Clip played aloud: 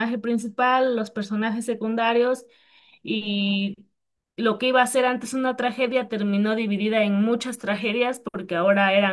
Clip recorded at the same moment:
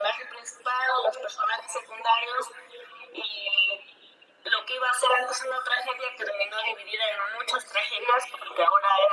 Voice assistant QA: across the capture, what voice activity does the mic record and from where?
echo only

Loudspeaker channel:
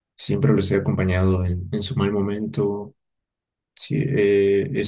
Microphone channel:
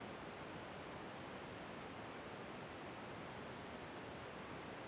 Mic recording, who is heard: neither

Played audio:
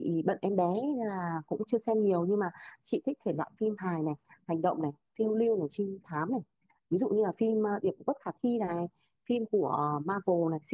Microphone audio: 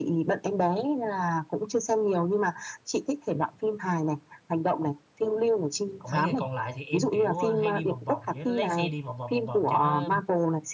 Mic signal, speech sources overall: both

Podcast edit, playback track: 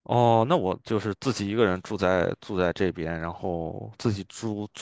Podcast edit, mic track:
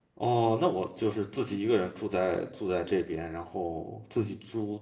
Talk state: echo only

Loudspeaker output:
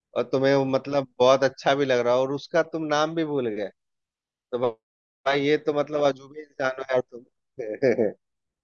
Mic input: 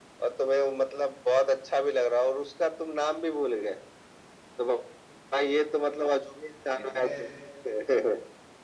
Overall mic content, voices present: both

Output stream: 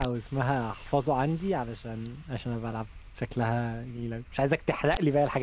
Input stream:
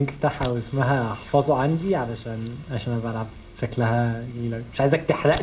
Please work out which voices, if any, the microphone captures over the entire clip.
echo only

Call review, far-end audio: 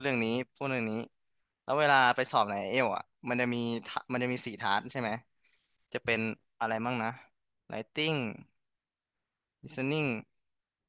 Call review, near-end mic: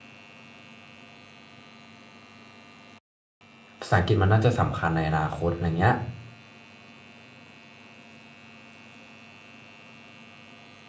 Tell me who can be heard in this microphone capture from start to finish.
user only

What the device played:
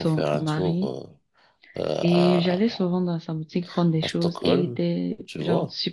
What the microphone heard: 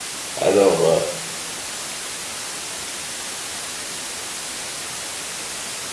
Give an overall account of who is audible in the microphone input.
user only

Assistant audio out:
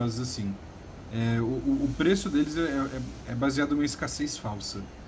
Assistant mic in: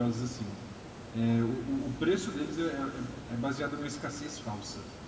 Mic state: echo only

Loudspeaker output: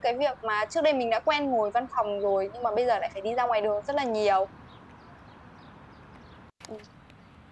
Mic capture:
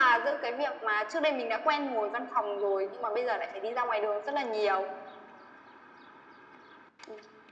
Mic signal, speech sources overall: echo only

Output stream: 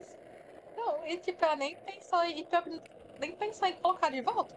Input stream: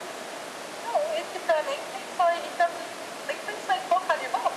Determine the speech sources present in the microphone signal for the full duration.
echo only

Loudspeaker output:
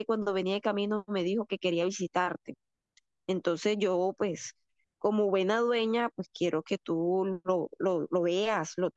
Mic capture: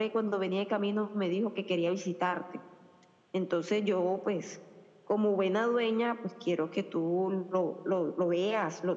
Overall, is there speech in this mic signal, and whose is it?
echo only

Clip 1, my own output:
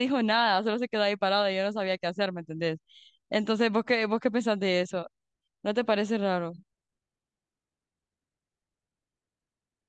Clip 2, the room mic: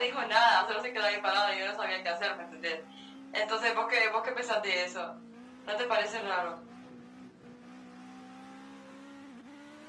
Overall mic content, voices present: echo only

